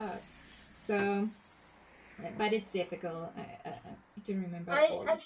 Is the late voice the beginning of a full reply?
Yes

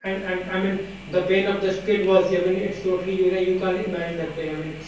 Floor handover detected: No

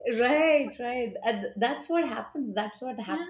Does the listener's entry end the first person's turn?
No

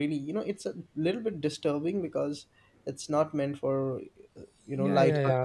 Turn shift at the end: Yes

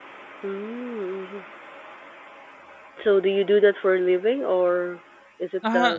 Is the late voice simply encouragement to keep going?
No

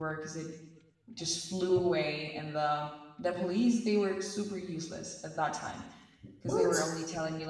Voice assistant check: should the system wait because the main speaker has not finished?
Yes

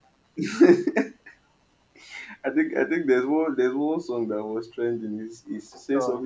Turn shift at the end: No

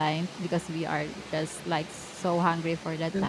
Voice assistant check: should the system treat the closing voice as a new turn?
No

